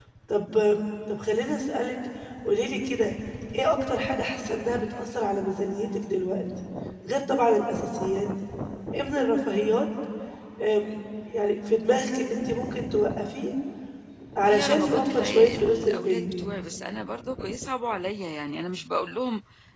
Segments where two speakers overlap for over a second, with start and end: 14.5-16.3

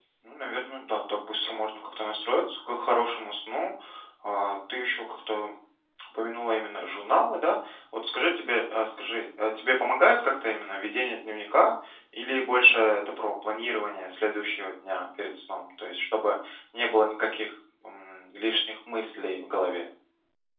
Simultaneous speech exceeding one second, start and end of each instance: none

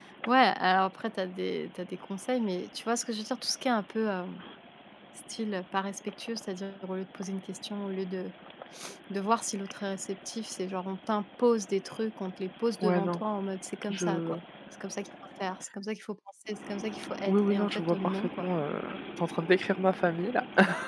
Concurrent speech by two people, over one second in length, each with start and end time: 17.3-18.5

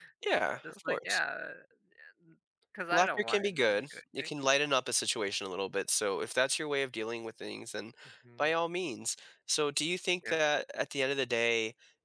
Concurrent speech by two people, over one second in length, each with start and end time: 2.9-4.3

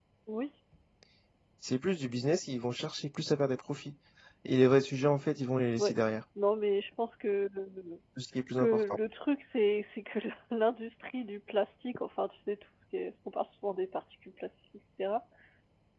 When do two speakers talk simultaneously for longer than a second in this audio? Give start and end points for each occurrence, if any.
none

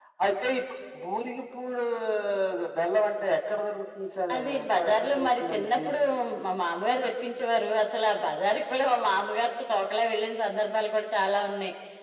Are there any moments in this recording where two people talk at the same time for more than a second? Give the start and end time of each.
4.3-5.9

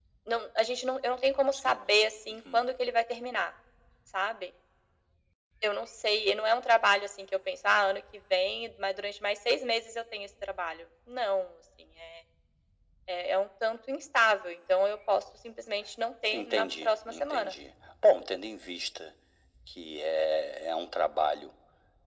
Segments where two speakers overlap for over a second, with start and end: 16.3-17.5

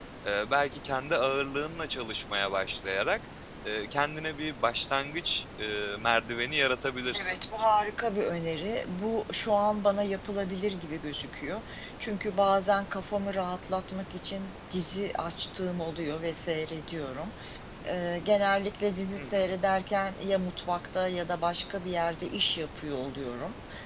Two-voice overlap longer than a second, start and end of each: none

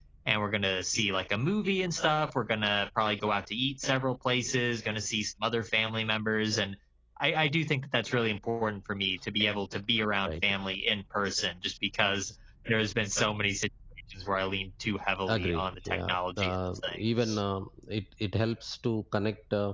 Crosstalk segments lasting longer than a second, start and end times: 15.3-17.4

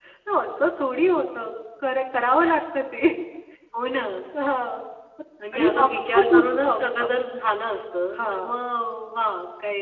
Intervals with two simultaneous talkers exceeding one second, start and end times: 5.5-7.0

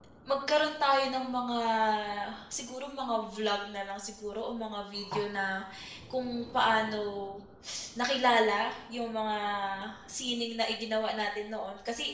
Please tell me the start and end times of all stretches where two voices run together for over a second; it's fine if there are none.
none

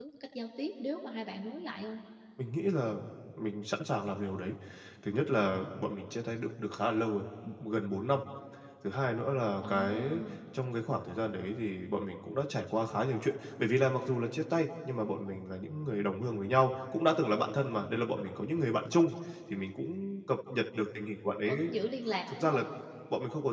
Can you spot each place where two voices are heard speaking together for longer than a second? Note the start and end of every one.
none

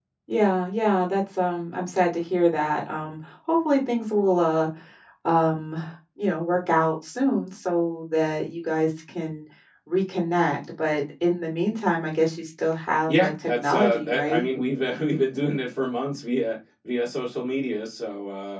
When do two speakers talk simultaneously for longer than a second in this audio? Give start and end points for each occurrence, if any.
13.1-14.5

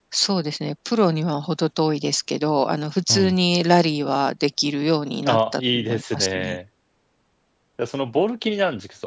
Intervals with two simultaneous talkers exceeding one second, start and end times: 5.2-6.6

